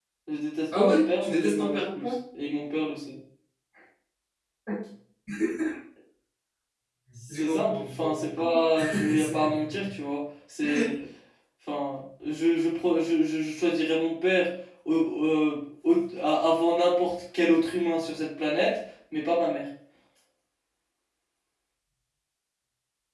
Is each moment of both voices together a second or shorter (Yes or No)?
No